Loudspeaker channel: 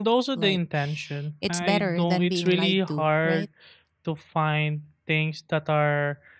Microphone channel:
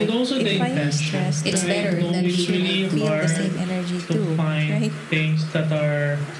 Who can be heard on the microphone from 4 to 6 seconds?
both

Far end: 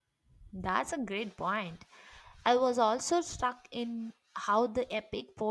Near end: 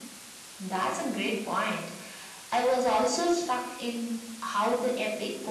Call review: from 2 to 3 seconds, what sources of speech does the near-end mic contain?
echo only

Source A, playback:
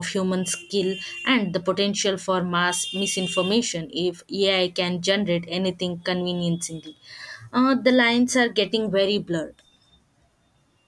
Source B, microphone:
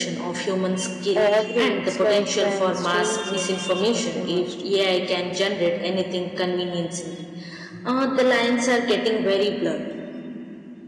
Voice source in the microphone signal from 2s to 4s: both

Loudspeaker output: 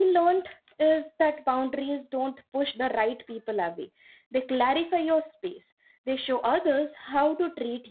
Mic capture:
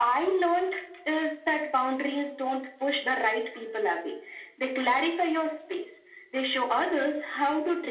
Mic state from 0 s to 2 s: echo only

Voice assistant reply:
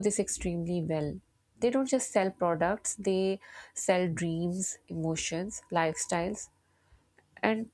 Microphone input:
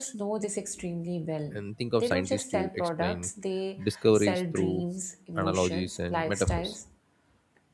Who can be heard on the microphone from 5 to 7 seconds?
both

